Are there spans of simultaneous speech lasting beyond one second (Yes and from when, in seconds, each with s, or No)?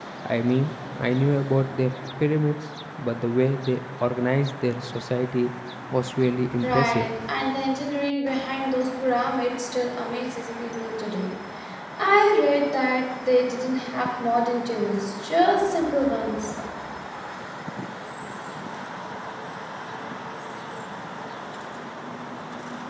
No